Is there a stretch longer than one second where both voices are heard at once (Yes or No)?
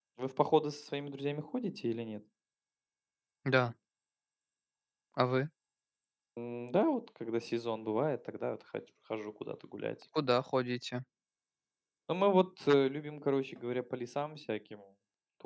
No